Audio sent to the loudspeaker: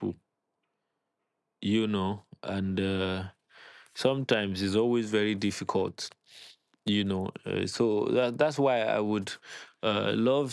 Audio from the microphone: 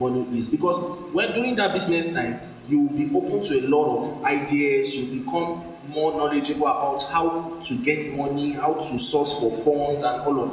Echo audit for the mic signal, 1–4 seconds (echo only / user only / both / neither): user only